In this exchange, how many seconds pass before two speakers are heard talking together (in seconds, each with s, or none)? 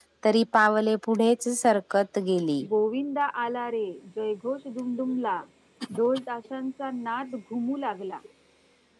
none